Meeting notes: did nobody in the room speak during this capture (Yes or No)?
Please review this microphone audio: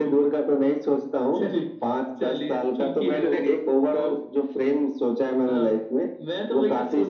Yes